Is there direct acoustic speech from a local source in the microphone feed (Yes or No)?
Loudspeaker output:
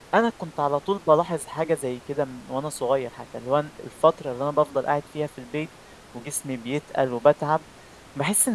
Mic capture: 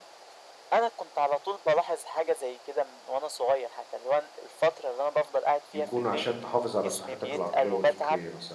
Yes